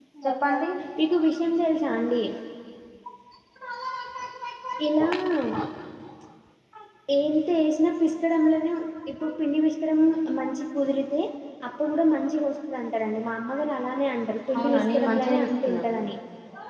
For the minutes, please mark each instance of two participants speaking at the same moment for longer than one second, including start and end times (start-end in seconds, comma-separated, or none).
14.6-15.8